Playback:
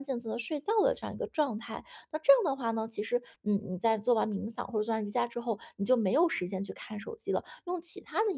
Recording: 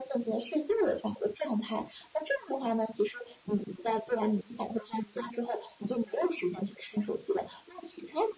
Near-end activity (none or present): none